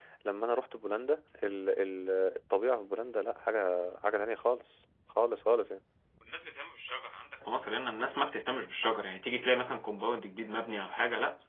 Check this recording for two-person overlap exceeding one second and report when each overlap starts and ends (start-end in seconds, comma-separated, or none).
none